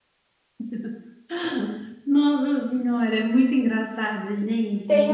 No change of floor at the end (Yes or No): No